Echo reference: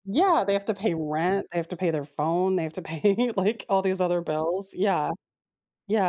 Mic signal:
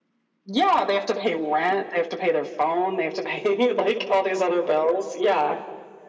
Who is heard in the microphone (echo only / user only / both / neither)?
echo only